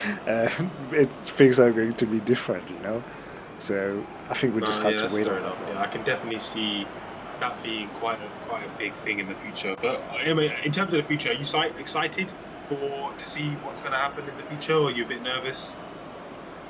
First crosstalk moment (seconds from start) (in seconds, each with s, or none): 4.5 s